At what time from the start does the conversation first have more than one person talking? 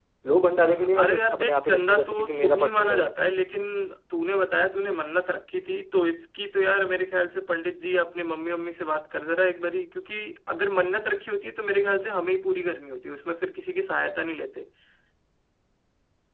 1 s

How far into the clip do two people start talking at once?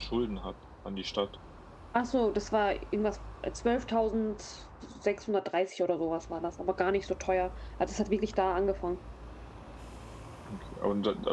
none

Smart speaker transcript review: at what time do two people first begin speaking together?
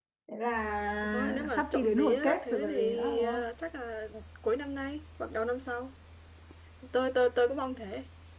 1 s

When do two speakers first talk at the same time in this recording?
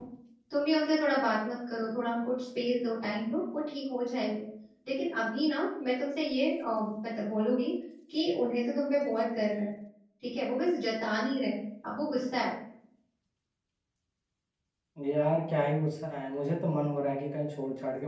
none

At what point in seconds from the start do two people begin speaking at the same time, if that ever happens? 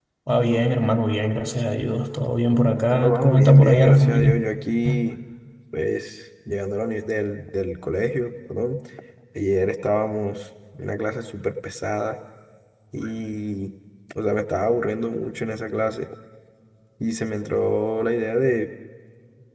3 s

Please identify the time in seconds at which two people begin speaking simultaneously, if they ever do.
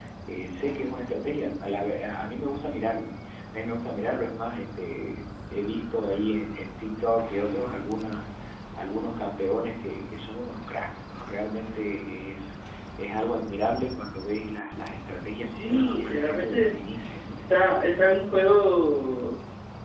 15 s

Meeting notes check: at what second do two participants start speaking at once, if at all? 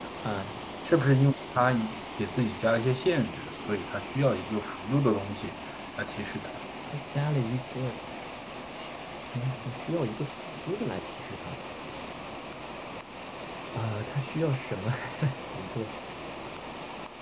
none

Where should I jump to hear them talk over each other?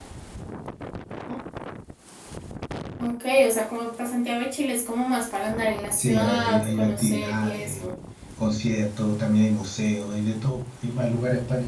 6 s

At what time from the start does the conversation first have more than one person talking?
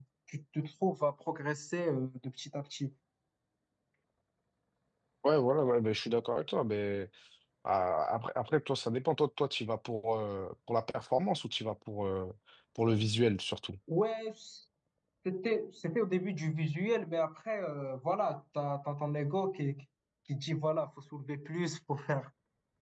none

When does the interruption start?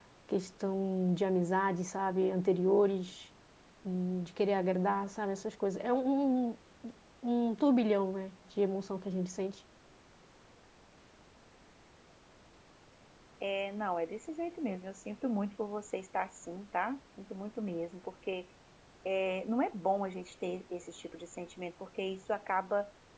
none

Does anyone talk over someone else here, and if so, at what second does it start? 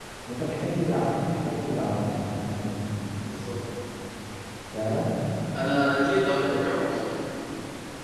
none

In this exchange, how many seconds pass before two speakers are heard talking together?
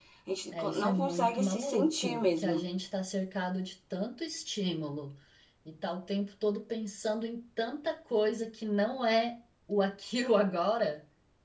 1 s

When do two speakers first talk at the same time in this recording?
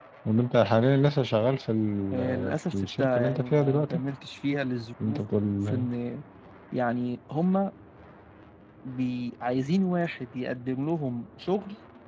2 s

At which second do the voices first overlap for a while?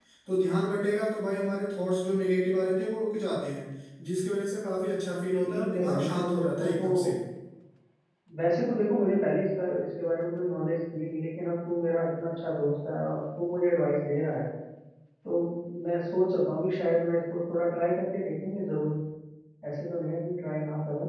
5 s

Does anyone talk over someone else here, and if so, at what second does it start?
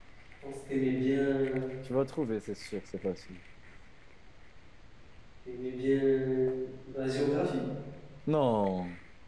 none

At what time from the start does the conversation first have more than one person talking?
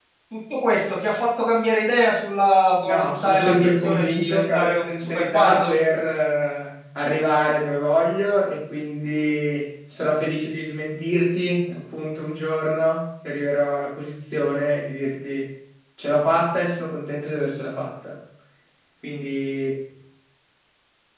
3 s

